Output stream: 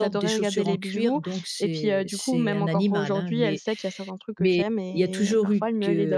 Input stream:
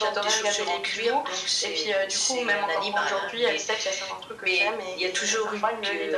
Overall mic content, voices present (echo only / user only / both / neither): echo only